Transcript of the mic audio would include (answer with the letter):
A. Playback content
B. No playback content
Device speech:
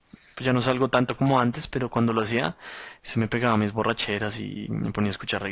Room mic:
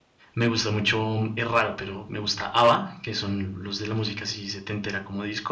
B